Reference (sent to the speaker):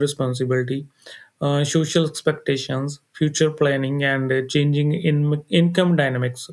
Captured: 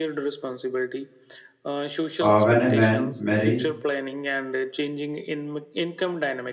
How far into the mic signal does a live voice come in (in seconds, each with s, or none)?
2.2 s